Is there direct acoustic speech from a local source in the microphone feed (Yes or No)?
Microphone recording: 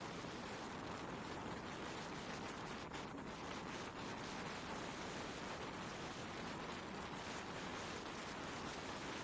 No